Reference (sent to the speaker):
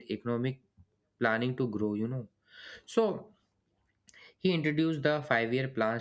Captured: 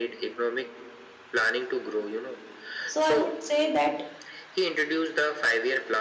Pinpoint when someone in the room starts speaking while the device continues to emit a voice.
2.8 s

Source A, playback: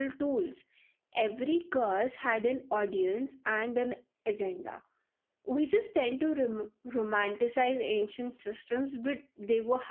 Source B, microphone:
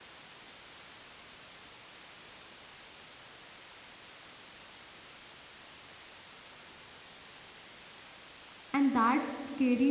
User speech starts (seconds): 8.7 s

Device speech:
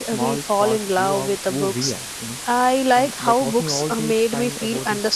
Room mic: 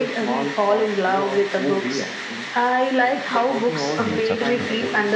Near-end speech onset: 4.0 s

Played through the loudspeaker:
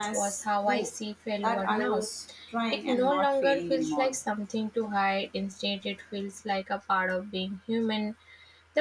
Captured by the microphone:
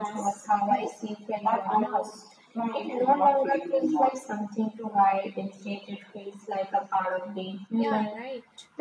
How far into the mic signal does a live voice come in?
7.8 s

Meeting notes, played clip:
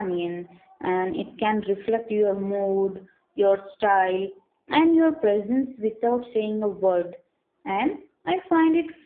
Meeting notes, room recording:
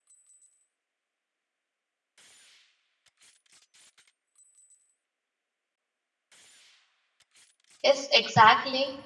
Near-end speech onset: 7.8 s

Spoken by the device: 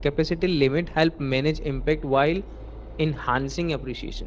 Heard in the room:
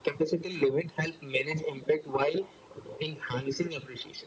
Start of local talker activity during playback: none

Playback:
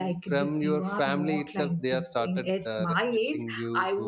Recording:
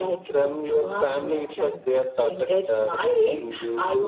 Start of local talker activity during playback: none

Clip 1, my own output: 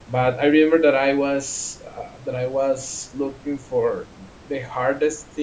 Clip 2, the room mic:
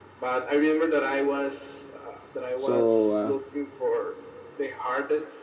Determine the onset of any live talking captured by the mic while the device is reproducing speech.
2.5 s

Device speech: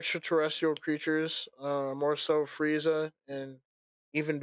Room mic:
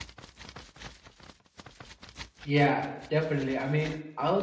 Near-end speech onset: 2.4 s

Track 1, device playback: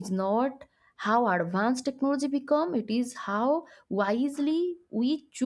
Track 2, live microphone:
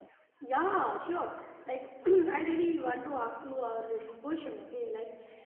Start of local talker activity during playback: 0.4 s

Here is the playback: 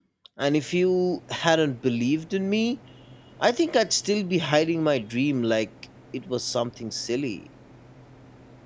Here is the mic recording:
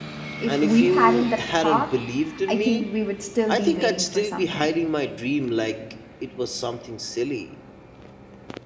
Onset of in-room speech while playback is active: 0.4 s

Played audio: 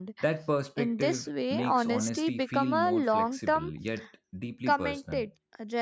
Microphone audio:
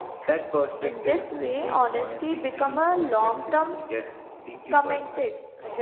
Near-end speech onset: none

